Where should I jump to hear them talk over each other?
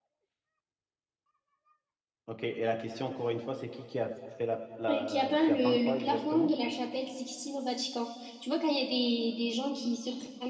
4.9 s

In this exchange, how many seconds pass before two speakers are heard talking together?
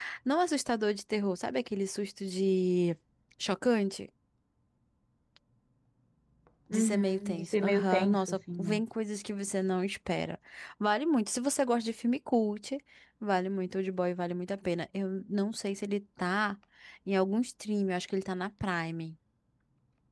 6.7 s

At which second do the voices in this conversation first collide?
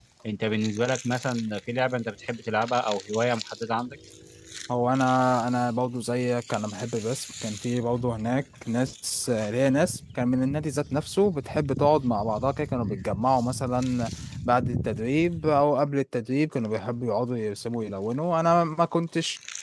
none

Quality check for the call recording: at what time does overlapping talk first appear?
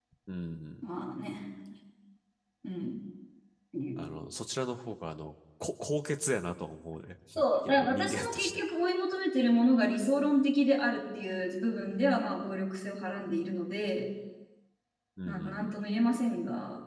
7.4 s

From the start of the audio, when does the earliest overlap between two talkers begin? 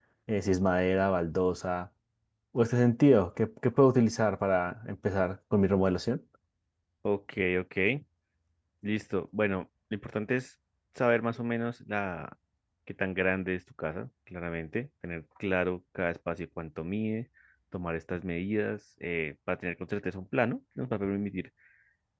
none

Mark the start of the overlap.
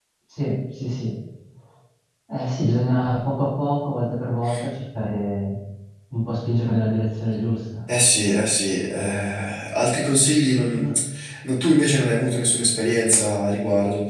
none

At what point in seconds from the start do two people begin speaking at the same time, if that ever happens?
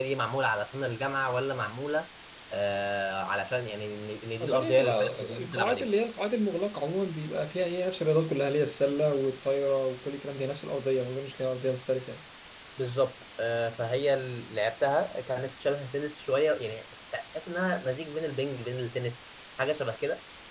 4.4 s

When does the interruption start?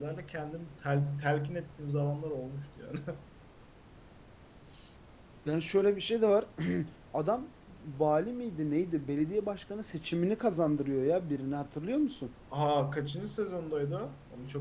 none

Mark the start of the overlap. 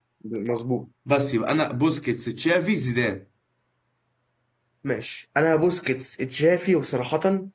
none

